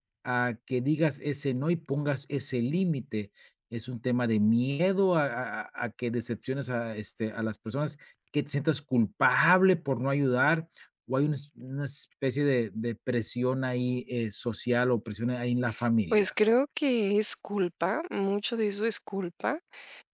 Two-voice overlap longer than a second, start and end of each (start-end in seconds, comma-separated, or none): none